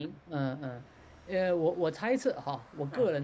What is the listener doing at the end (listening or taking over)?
listening